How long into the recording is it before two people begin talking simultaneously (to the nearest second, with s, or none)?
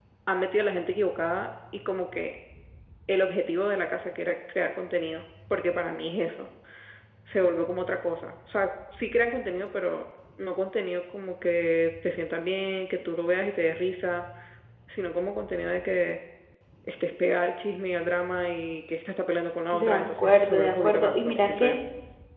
20 s